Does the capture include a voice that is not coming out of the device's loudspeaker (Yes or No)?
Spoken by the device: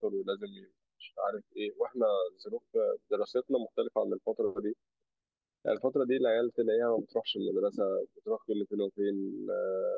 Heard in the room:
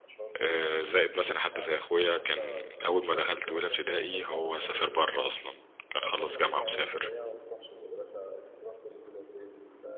Yes